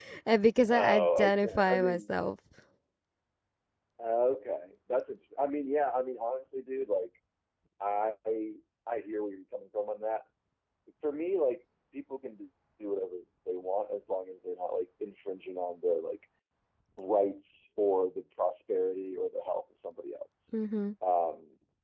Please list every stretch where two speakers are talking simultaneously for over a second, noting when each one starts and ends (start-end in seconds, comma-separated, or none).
0.7-2.2